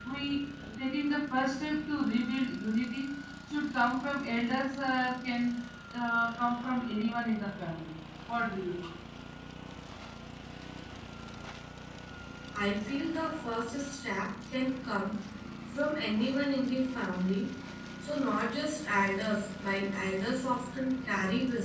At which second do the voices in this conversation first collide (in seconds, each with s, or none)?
none